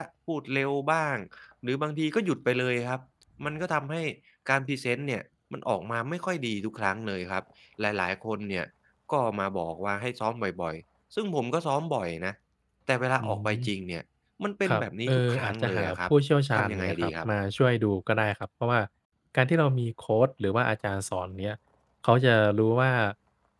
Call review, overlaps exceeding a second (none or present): present